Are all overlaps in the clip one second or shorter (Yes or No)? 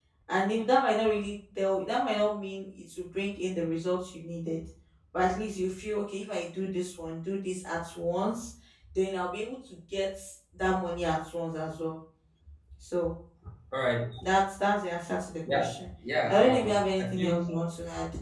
No